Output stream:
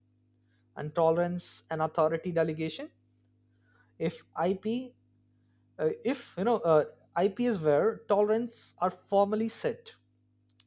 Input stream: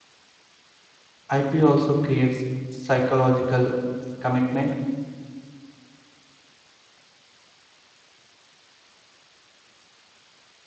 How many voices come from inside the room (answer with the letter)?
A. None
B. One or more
B